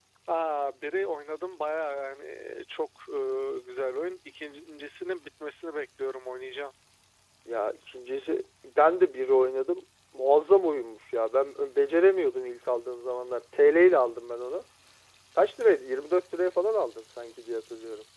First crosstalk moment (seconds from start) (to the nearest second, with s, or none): none